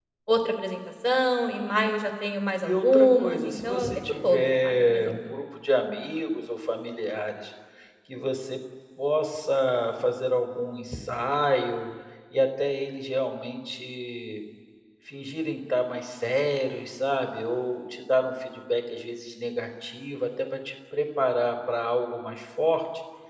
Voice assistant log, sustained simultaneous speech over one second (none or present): present